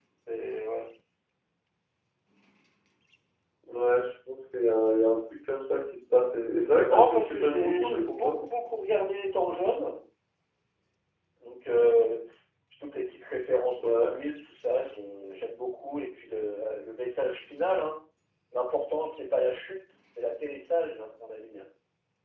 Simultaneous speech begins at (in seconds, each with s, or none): 6.9 s